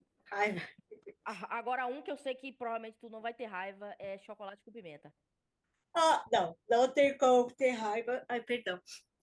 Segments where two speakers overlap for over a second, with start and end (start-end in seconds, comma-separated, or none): none